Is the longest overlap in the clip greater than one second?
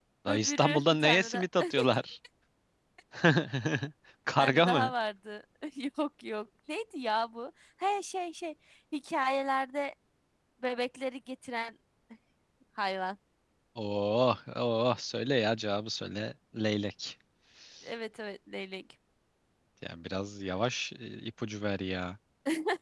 Yes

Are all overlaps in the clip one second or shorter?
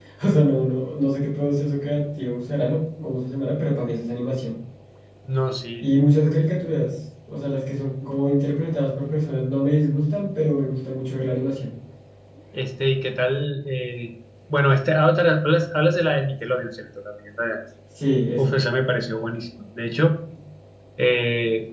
Yes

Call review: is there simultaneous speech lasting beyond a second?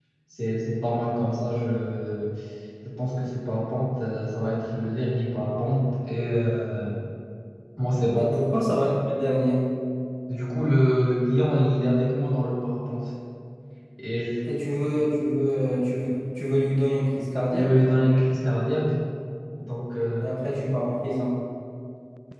No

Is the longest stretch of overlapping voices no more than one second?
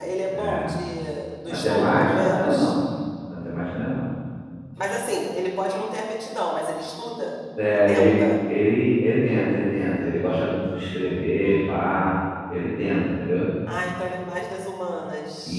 No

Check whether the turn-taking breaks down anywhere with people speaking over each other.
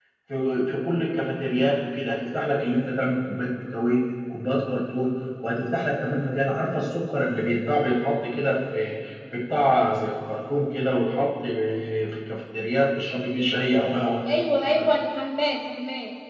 No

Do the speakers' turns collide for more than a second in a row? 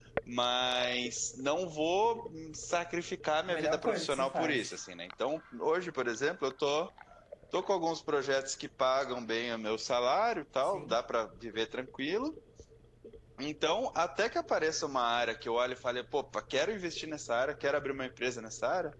Yes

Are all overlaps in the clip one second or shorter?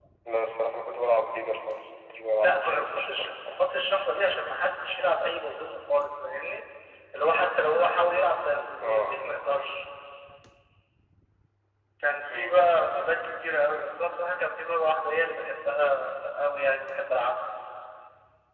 No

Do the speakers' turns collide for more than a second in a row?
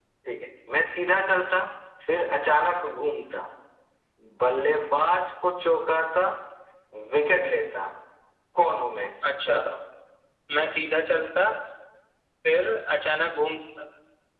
No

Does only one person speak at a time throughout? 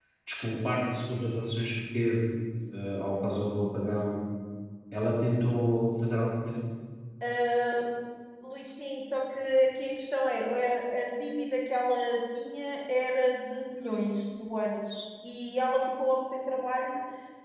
Yes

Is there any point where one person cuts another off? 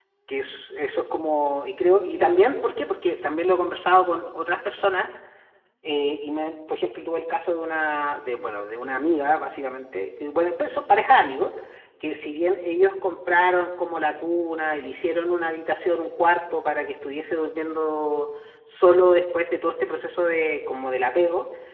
No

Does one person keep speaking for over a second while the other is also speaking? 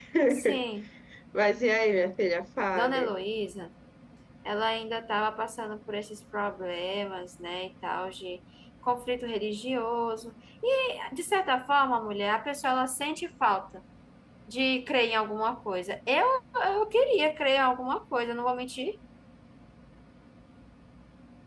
No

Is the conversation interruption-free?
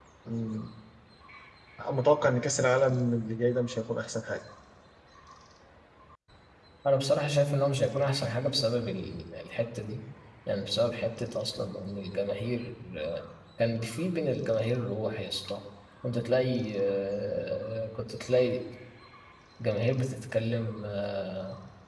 Yes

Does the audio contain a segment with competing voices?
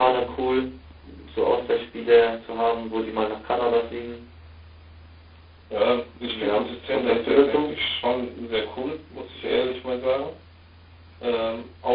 Yes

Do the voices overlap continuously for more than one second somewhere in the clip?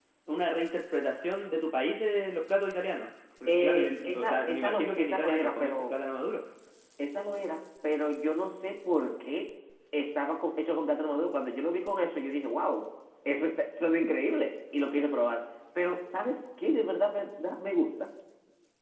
Yes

